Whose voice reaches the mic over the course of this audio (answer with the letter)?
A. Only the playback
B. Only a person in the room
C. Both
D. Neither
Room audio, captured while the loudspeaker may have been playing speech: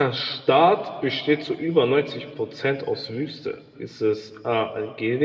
B